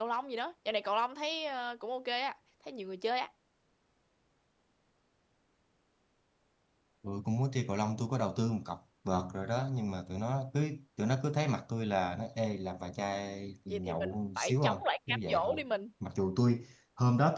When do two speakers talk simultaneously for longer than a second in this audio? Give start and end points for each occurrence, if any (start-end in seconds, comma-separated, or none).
13.7-15.6